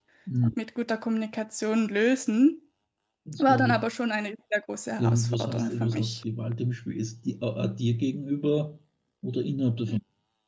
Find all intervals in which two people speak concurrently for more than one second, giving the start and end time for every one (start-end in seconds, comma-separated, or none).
5.0-6.2